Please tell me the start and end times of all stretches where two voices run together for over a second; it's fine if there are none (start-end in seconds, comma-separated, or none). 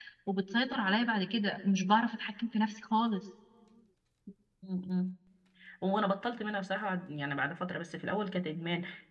none